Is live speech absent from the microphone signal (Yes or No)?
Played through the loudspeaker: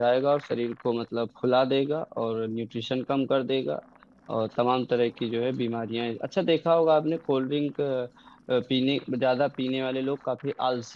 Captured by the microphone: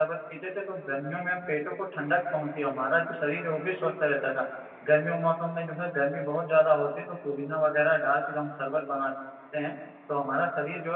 No